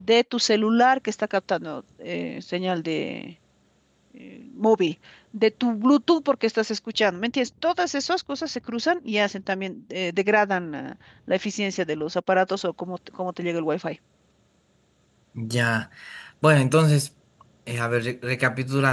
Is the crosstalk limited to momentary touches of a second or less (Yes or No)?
Yes